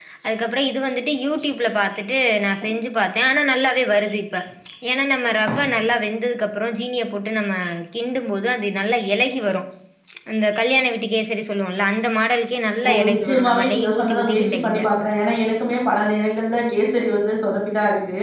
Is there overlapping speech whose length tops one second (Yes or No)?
Yes